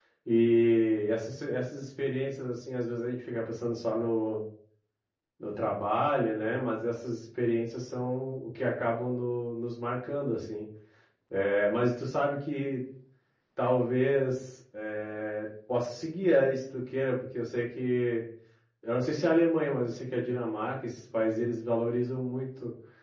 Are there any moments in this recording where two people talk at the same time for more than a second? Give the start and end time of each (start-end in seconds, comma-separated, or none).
none